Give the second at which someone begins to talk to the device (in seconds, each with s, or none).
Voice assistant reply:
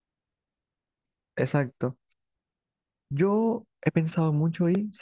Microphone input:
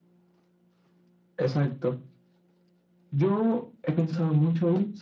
none